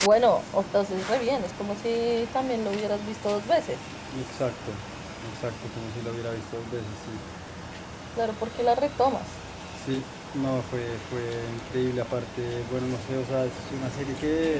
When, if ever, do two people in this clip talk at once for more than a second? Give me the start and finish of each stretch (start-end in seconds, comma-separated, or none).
none